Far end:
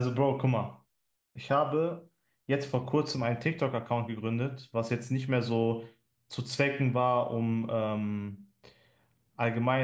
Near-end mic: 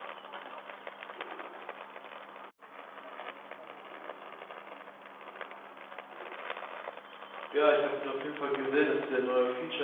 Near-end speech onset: 7.5 s

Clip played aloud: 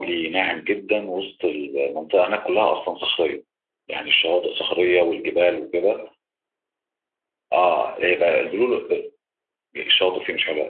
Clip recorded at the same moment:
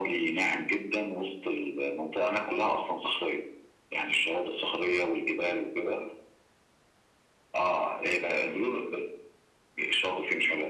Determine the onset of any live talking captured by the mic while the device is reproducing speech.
none

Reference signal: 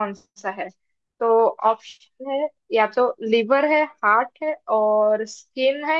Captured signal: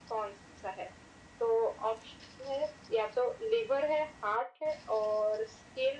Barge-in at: none

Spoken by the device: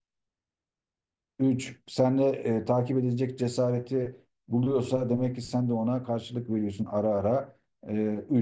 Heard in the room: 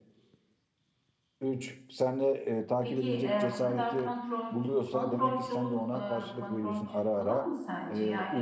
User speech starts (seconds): 2.8 s

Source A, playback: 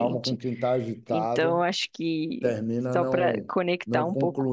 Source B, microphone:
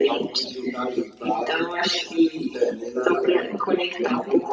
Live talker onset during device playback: none

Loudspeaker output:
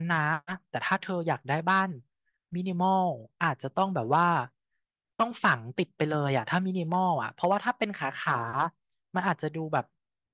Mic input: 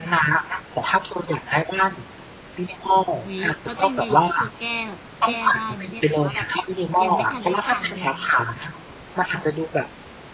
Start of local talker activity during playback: 3.3 s

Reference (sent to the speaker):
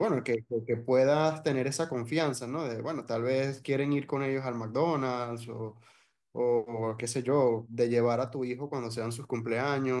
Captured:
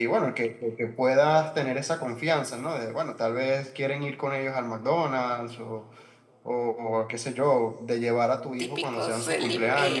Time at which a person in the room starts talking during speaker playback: 8.6 s

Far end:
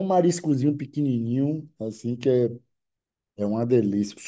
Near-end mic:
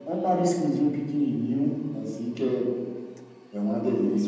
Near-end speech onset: none

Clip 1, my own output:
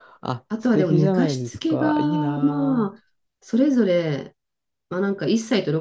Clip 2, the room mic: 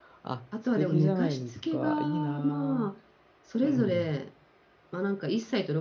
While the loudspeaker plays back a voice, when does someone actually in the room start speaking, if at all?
3.6 s

